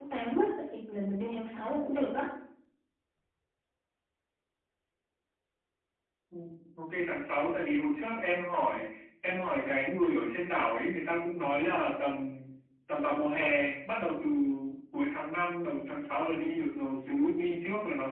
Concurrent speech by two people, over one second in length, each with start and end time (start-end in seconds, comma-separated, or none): none